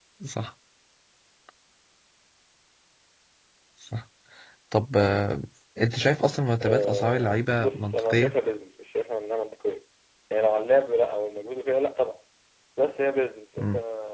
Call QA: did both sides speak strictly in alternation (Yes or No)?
No